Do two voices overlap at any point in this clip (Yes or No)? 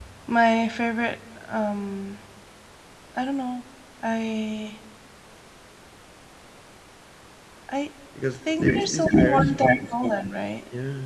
Yes